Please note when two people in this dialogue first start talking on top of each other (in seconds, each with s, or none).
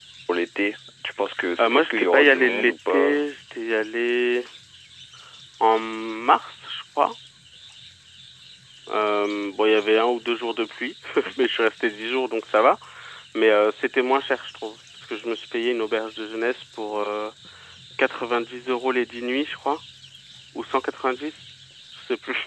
1.4 s